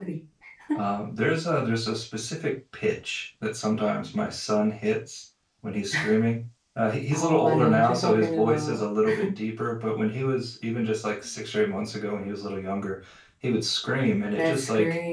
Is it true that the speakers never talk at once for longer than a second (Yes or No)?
No